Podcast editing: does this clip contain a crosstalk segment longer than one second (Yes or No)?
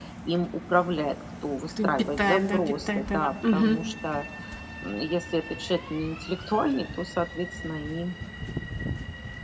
Yes